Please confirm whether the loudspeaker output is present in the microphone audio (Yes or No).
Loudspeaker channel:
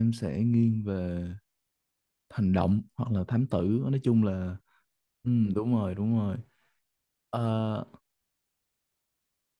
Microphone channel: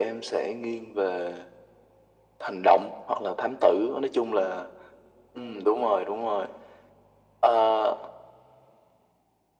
Yes